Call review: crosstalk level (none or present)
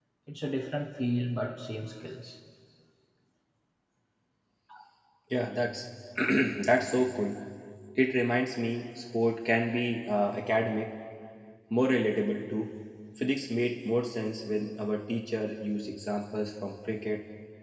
none